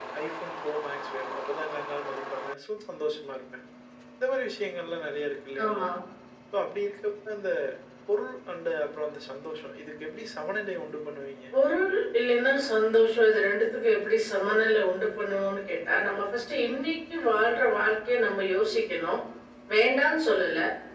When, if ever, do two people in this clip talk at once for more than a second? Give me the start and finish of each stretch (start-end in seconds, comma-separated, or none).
none